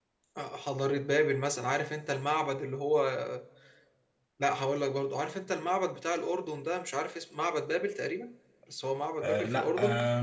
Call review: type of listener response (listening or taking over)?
taking over